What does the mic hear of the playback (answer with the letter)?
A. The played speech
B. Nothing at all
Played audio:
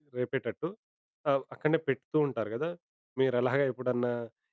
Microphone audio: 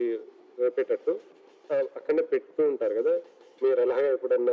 A